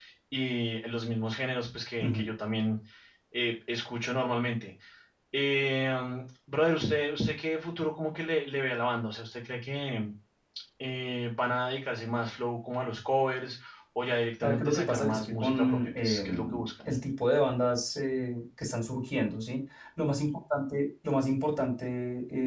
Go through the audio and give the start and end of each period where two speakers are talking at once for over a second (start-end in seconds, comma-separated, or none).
14.4-16.6